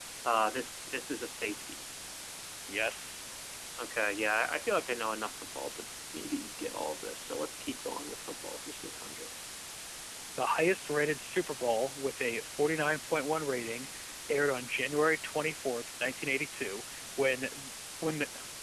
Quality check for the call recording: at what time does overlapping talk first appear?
none

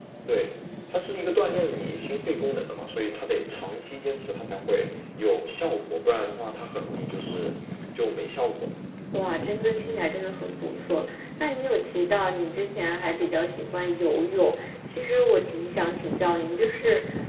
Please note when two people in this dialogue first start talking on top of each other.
none

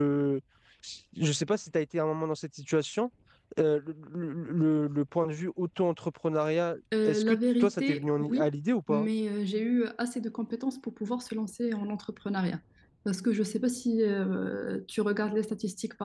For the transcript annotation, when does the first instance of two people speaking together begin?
6.9 s

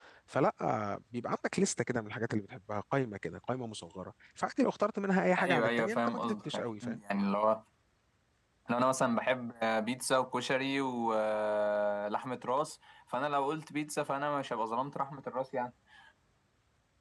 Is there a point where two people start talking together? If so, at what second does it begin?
5.4 s

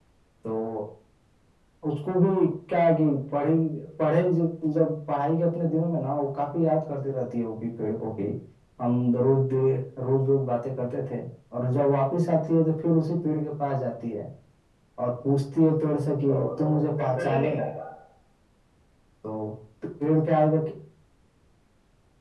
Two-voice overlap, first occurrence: 16.3 s

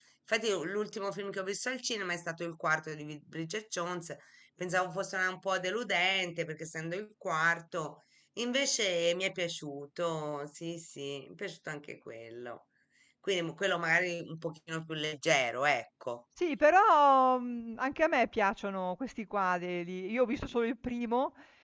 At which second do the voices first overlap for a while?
none

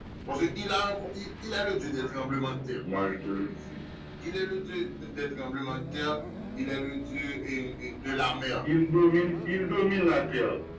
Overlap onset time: none

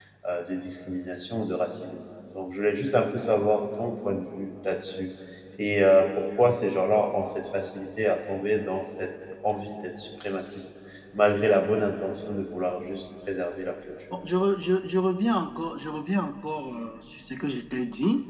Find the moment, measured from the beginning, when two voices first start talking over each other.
none

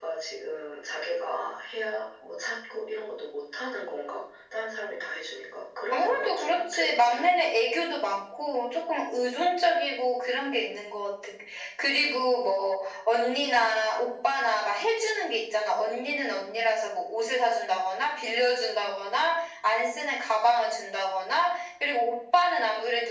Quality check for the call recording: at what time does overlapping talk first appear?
5.9 s

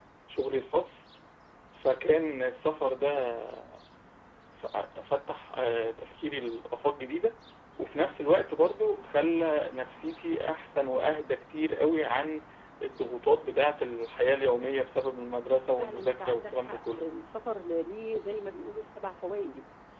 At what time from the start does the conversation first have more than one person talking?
15.8 s

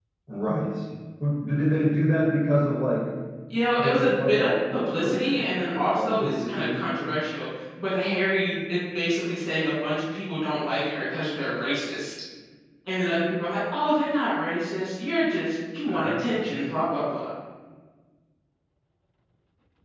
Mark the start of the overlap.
3.8 s

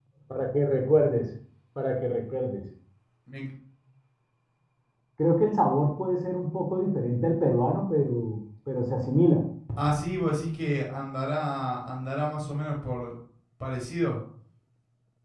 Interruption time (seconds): none

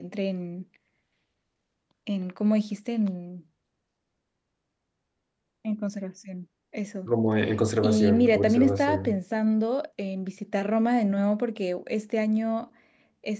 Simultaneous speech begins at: 7.8 s

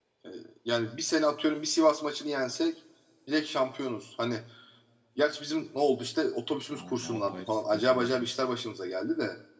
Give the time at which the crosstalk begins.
6.7 s

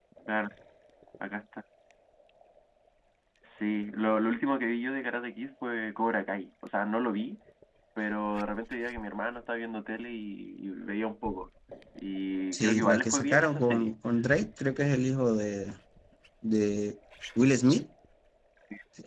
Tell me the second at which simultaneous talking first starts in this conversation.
12.5 s

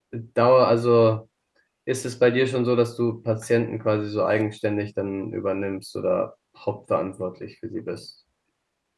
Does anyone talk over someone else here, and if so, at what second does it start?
none

